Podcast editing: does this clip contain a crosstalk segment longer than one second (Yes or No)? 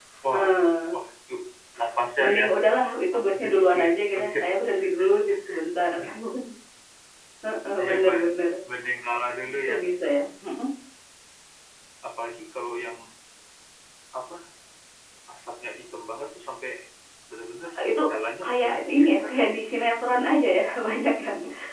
Yes